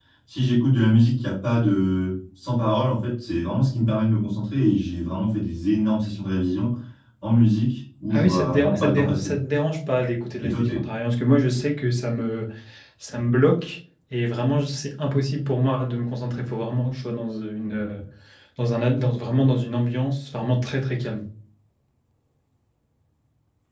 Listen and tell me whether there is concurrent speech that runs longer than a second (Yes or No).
Yes